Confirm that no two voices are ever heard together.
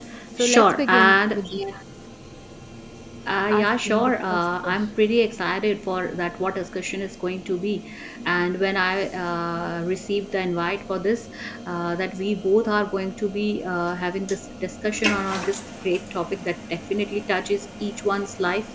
No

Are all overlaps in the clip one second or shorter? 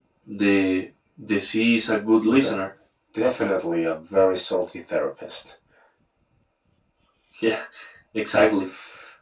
Yes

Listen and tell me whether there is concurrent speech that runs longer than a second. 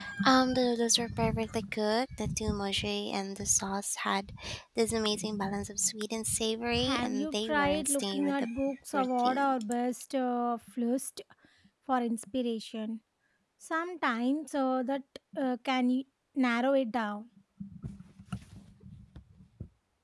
Yes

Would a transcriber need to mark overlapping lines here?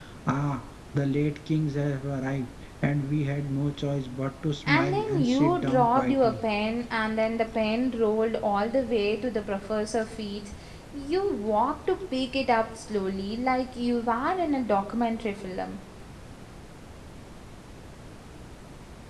Yes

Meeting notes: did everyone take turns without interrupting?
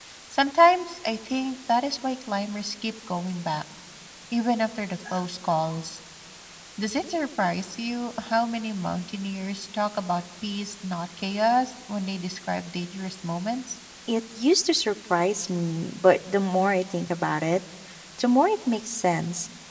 Yes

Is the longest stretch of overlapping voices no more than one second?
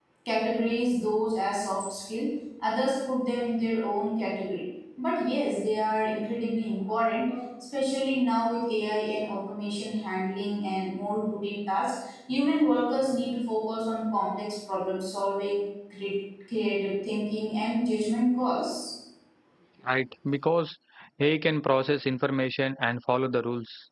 Yes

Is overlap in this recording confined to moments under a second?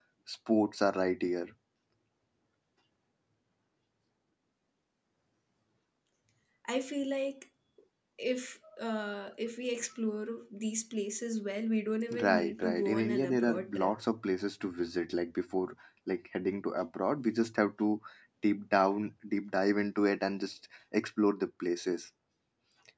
No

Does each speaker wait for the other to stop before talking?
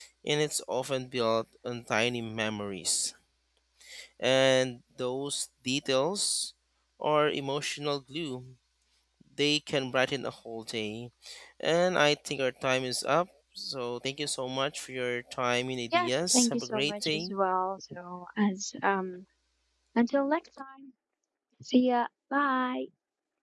No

